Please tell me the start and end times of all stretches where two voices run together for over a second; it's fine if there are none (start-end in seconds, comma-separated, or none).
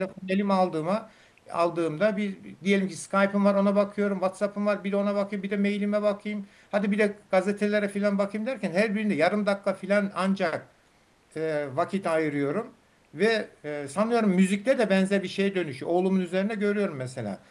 none